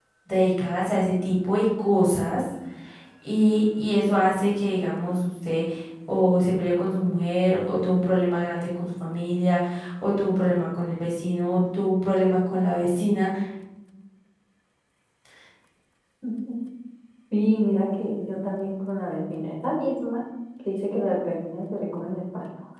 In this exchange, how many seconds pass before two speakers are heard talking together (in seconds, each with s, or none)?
none